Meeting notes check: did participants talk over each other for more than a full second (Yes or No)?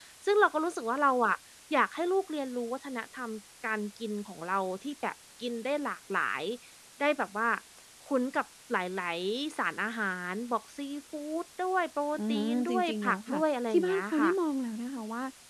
Yes